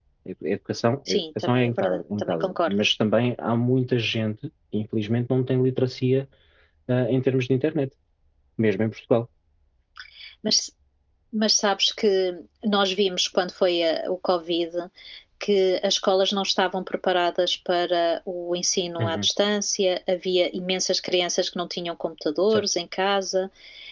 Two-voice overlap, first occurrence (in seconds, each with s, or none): 1.1 s